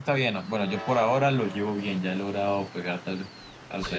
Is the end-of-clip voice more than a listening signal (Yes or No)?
Yes